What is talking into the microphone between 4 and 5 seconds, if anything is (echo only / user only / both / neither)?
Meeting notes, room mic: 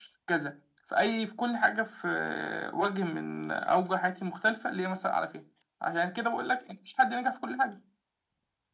echo only